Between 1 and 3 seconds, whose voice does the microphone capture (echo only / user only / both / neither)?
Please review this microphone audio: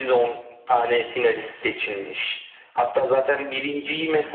echo only